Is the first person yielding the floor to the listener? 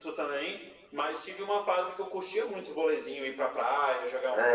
Yes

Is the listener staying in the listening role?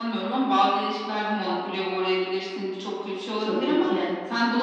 Yes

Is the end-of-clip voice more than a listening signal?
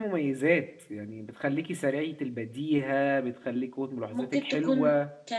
Yes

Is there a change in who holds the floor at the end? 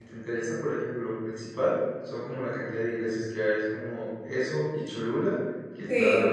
No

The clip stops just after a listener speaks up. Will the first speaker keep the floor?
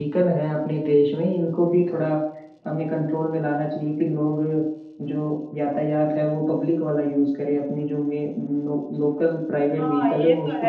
No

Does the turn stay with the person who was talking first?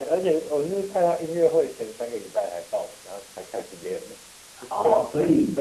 No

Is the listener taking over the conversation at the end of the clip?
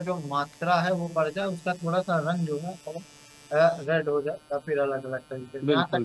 No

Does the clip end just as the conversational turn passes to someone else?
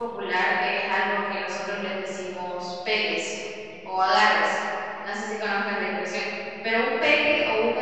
No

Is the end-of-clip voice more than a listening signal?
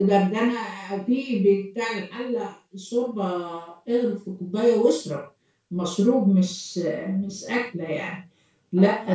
No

